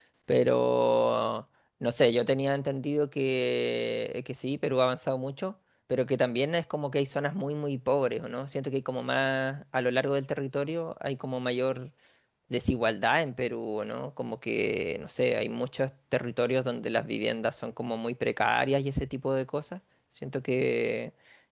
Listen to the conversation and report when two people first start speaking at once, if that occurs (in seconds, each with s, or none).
none